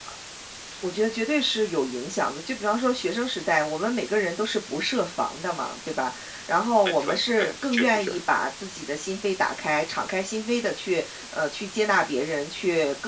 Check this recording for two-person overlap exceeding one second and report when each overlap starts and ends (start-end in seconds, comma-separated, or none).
6.8-8.1